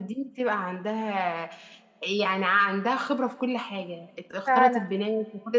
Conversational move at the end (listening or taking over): listening